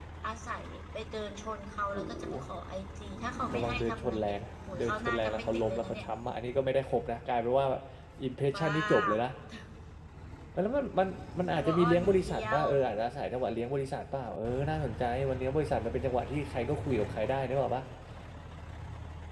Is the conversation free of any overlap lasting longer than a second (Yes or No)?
No